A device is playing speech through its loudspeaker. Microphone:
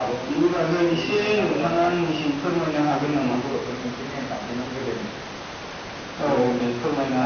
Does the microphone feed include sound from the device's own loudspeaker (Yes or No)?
Yes